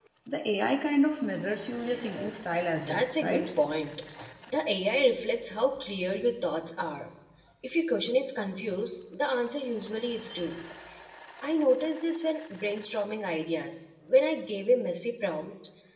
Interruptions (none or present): present